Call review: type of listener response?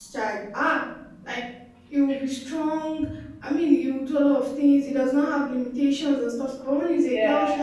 listening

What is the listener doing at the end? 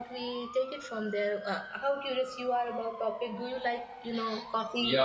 taking over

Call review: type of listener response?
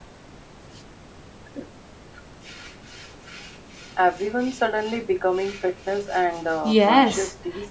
taking over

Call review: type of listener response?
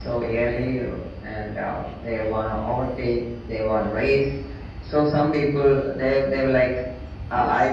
listening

